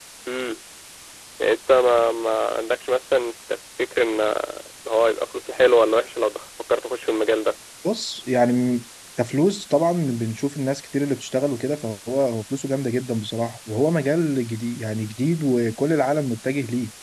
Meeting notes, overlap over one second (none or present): none